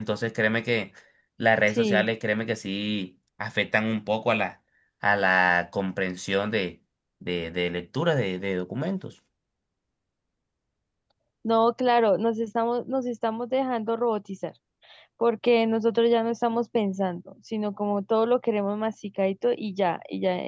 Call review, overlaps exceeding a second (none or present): none